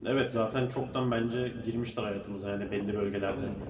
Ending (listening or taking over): listening